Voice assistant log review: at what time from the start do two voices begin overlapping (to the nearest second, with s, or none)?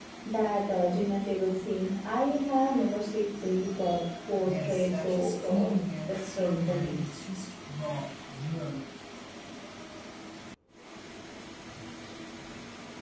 4 s